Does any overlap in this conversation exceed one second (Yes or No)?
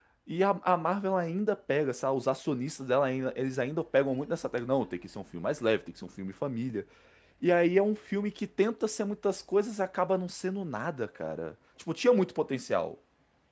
No